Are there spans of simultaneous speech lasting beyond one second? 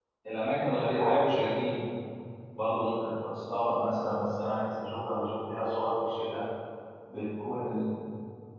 No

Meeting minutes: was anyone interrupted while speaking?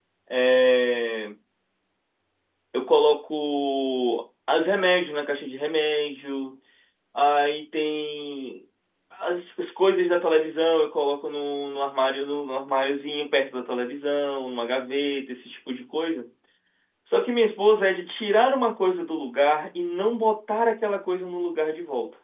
No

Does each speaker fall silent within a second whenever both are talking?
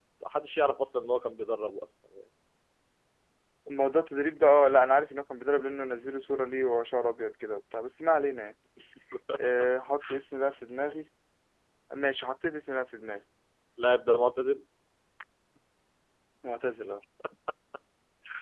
Yes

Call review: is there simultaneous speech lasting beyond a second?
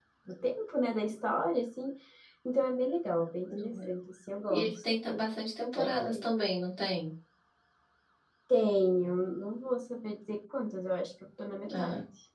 No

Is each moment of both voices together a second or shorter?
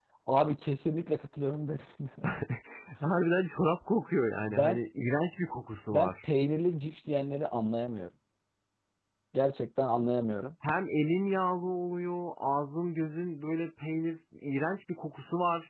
Yes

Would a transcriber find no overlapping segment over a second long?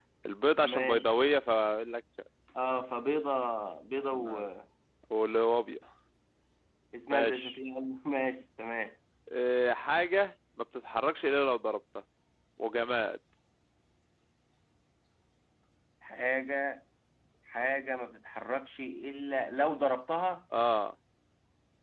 Yes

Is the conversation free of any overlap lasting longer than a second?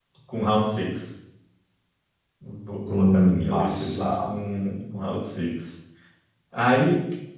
No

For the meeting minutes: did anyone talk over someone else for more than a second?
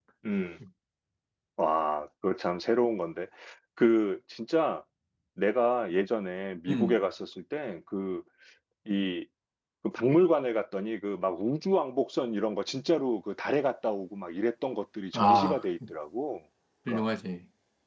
No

